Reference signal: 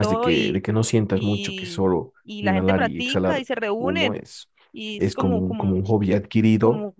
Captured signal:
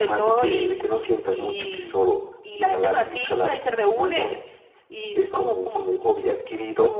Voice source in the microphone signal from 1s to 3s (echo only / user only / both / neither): echo only